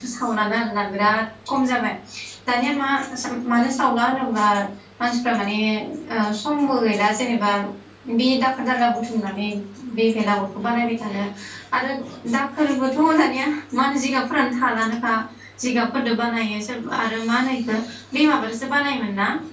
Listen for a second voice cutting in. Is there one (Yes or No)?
No